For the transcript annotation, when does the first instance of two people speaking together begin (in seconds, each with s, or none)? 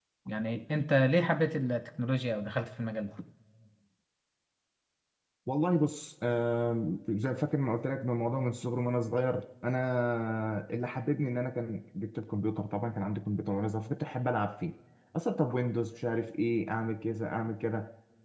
none